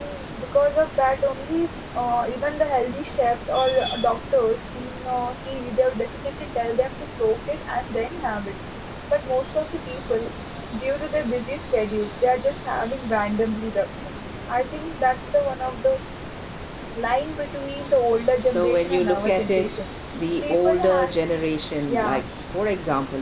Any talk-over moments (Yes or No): Yes